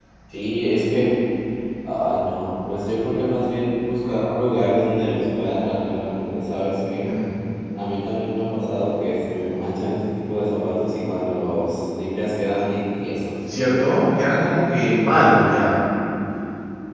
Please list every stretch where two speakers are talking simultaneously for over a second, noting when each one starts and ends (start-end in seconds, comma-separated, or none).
none